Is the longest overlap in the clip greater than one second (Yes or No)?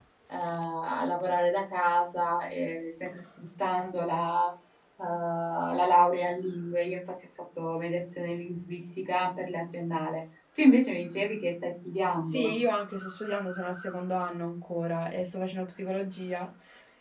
No